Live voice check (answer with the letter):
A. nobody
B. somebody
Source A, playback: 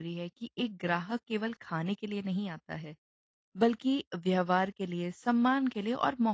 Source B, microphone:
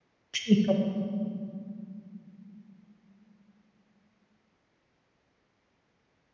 B